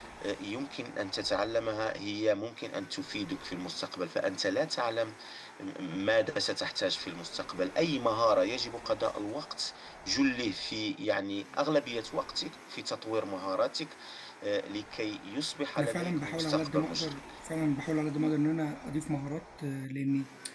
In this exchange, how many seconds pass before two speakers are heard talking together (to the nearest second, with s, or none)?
16 s